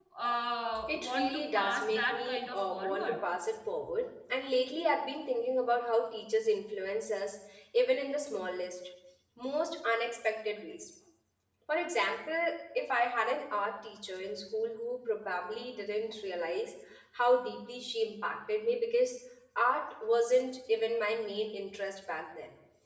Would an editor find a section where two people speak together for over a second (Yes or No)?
Yes